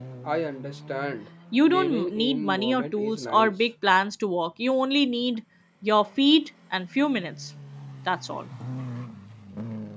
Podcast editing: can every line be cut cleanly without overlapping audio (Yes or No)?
No